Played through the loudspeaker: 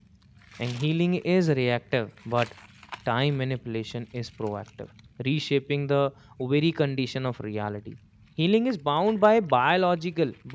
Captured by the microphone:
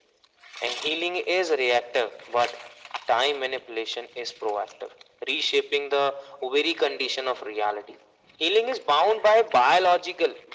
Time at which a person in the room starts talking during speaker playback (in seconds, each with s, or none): none